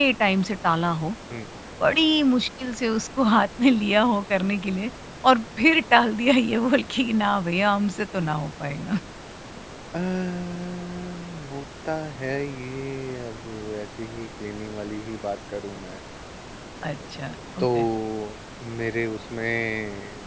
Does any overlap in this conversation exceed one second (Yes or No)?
No